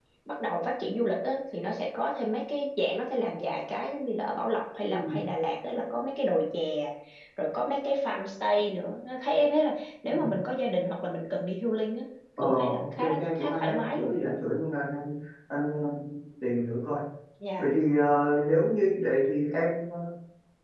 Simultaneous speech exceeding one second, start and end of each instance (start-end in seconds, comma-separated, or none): 12.4-14.2